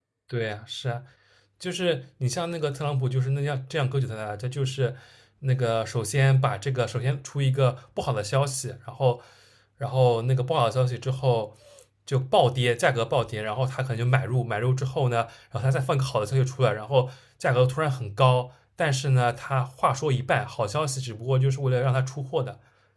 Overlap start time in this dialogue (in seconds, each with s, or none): none